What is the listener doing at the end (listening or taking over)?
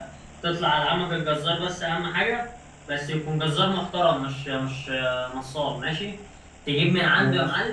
listening